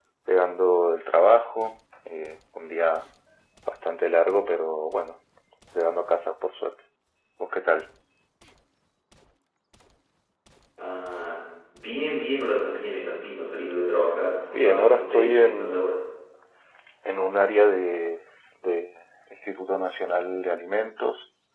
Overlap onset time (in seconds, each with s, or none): 14.5 s